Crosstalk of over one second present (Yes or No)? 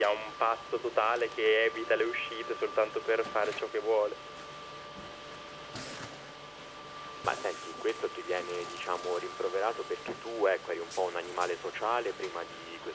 No